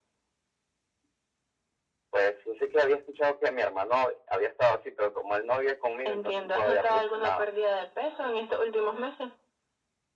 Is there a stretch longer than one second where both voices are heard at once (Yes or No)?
Yes